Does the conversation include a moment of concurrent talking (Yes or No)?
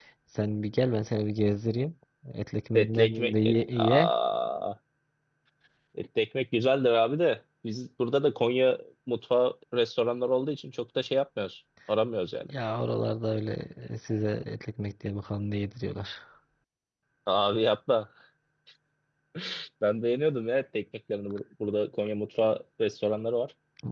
Yes